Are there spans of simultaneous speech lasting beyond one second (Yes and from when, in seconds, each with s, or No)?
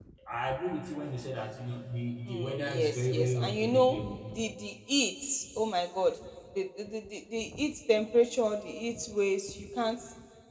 Yes, from 2.3 s